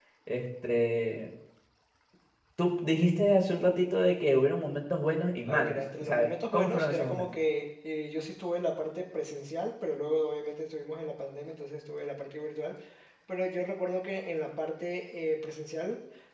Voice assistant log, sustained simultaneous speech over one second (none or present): present